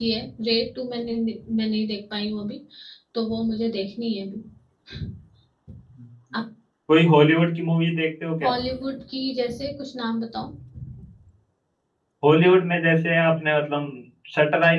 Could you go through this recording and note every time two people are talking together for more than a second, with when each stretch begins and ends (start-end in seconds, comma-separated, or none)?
none